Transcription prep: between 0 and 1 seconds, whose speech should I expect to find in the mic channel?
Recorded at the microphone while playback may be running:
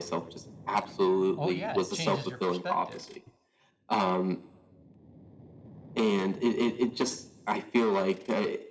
echo only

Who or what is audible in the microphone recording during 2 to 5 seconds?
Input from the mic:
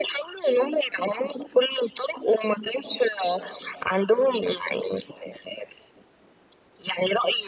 echo only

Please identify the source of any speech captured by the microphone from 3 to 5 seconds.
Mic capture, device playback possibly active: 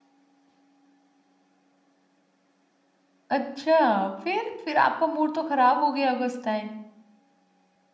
user only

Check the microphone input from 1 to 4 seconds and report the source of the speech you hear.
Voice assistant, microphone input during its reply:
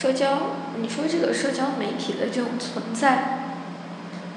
user only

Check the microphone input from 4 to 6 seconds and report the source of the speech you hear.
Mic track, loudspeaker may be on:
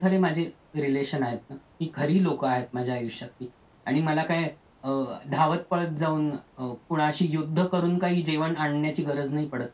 echo only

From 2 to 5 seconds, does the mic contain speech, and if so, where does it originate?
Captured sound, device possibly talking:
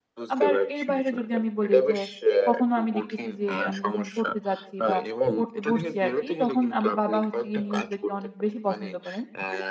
both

